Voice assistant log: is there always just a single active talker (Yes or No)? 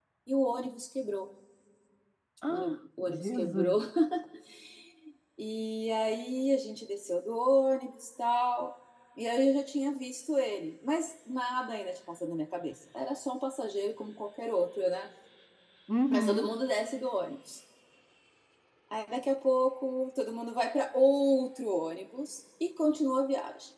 No